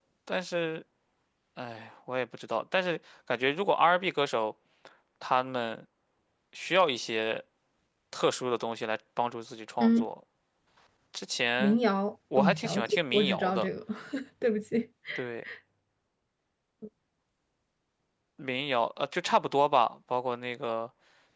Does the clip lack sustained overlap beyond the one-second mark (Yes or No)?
No